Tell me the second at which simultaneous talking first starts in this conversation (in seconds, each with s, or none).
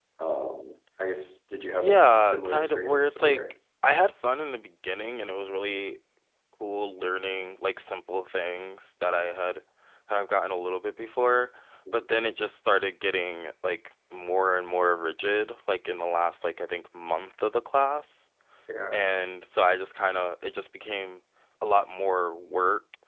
1.8 s